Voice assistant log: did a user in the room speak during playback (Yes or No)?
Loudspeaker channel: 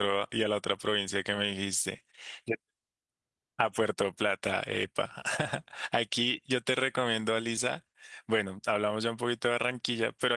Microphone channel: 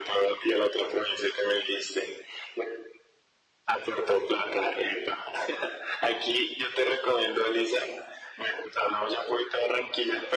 No